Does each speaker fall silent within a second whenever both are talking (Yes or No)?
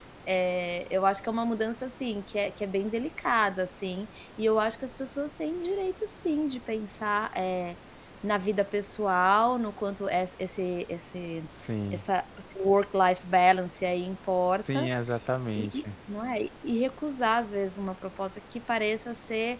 Yes